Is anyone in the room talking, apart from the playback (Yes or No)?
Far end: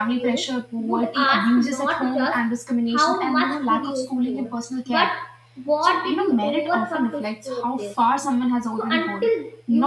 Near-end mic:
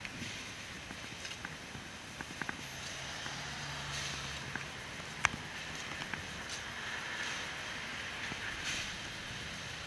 No